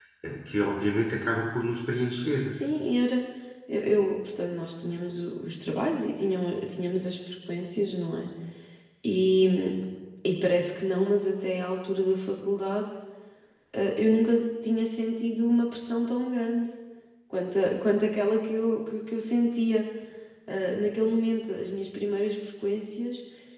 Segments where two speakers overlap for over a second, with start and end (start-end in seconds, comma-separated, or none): none